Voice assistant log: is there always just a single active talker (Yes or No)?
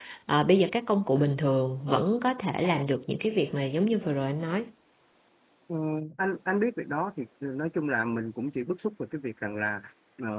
Yes